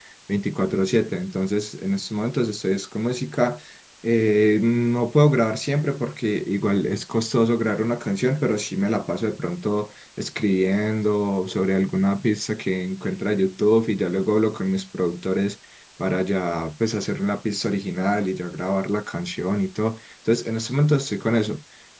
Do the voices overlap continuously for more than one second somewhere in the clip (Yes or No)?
No